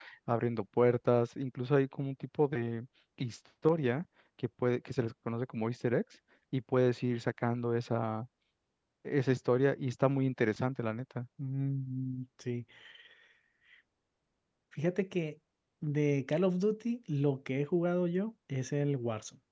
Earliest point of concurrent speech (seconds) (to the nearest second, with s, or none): none